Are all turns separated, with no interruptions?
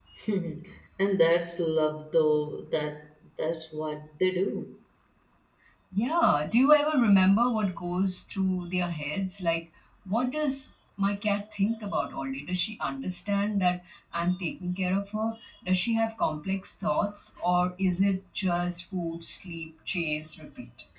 Yes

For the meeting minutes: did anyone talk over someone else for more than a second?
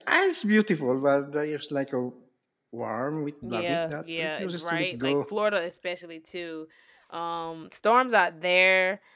Yes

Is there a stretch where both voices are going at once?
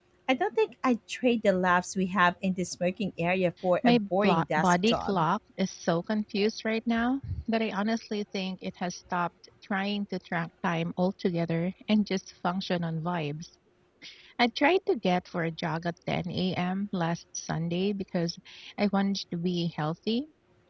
Yes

